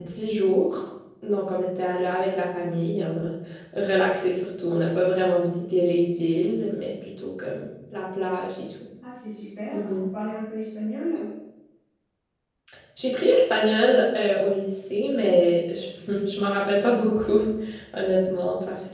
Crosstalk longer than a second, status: none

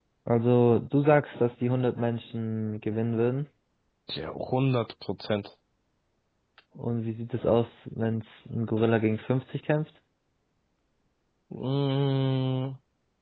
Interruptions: none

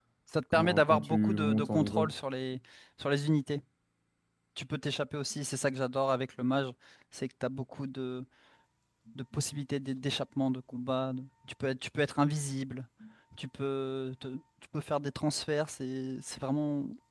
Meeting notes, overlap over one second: present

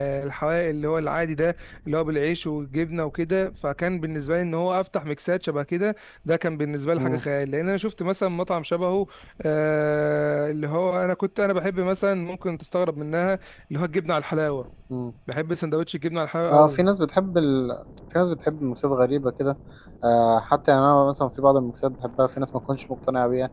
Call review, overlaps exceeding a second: none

